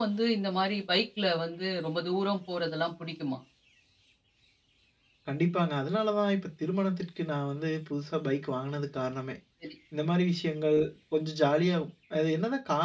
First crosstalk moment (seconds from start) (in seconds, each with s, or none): none